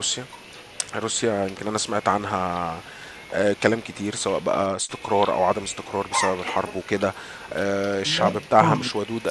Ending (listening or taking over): listening